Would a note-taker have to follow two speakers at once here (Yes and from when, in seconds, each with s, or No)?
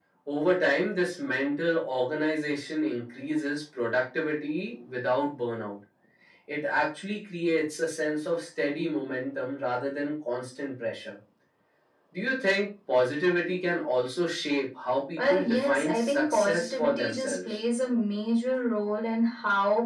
Yes, from 15.2 s